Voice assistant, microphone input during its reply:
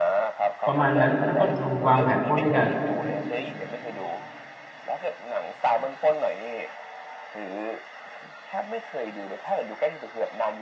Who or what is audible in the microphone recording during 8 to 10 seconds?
echo only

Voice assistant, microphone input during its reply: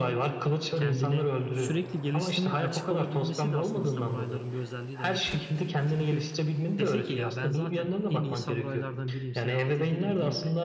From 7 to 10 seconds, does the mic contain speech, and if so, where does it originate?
both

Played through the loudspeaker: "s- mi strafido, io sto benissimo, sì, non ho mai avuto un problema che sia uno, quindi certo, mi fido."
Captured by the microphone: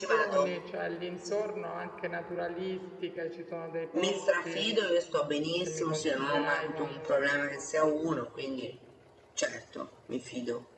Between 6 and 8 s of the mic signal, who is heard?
both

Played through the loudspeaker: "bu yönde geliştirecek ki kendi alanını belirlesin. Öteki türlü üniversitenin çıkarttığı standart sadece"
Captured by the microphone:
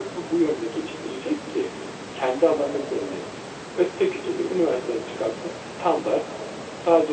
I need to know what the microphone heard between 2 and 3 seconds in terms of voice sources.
echo only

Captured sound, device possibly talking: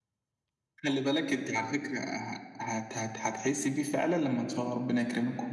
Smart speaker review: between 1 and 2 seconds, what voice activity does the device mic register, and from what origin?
echo only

